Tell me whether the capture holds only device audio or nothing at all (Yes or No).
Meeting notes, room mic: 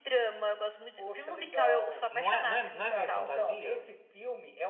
No